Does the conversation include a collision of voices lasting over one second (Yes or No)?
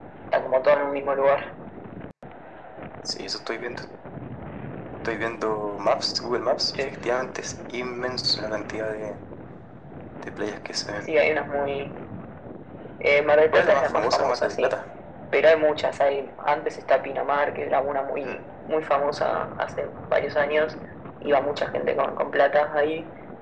Yes